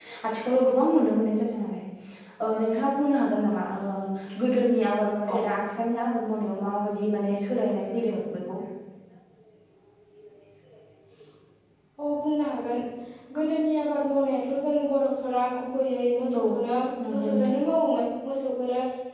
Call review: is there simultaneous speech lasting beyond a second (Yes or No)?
No